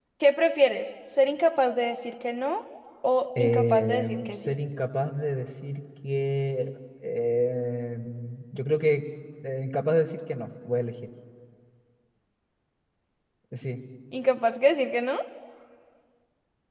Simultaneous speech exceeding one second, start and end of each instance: 3.4-4.6

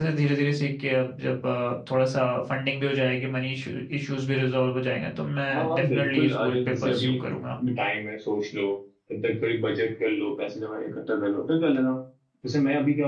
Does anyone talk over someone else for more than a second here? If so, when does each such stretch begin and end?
5.5-7.4

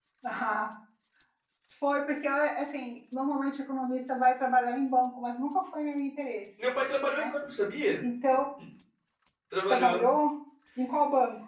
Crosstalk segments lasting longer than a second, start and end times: none

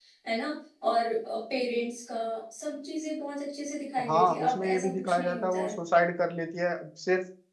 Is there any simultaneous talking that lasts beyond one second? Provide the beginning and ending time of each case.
4.1-5.8

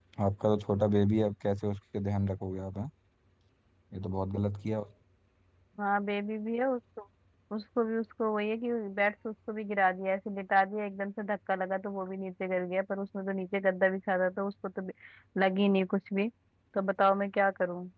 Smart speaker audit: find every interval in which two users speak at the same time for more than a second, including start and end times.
none

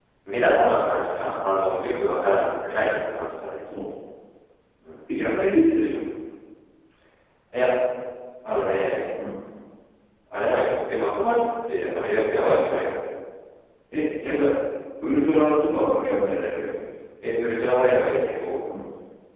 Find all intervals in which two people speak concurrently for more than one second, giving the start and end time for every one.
none

